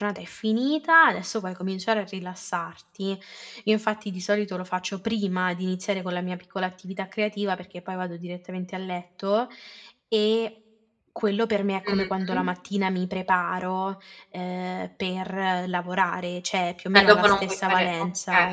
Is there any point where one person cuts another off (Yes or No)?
Yes